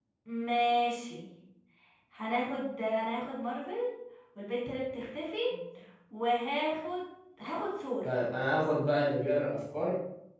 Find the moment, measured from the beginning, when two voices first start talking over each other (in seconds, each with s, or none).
none